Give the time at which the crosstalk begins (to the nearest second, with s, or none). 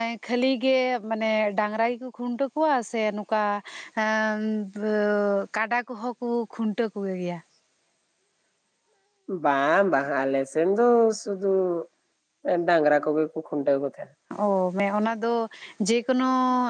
none